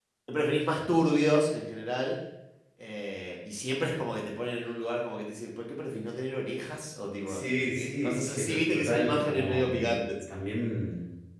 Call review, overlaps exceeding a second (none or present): present